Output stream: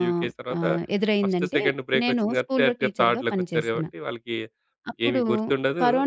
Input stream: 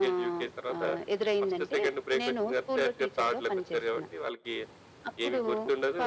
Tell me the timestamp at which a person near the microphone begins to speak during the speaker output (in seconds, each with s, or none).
none